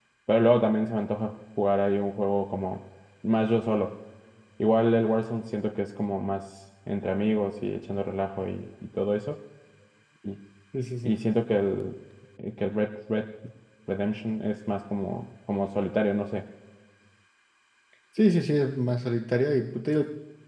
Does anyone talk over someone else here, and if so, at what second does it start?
none

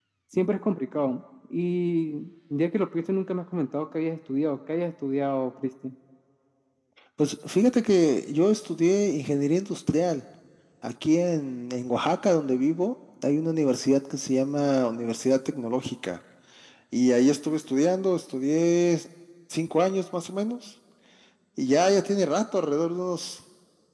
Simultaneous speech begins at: none

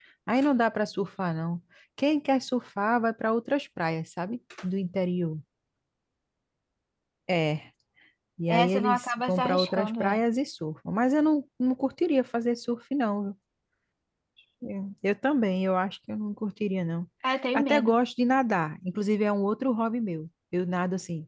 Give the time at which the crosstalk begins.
8 s

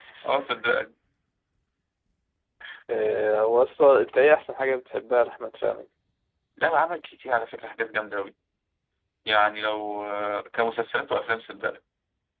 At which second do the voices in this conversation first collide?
none

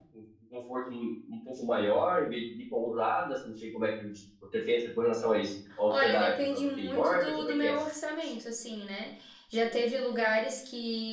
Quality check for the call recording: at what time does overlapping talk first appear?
6 s

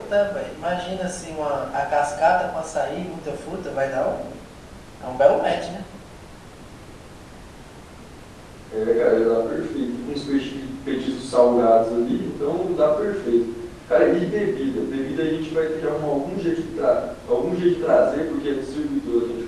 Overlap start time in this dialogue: none

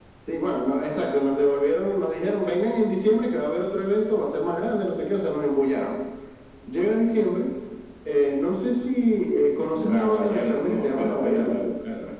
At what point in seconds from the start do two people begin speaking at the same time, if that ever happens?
10 s

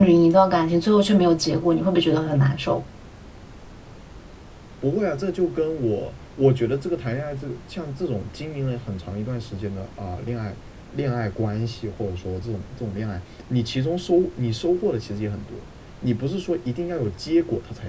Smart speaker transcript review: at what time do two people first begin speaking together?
none

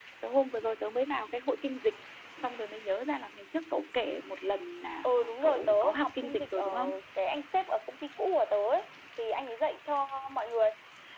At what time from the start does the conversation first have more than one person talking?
5 s

